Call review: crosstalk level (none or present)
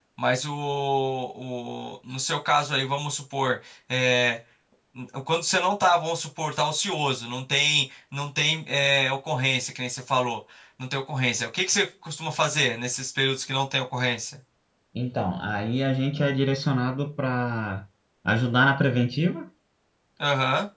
none